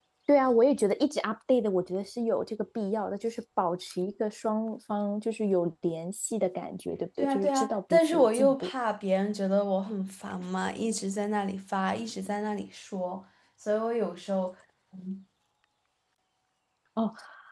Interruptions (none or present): present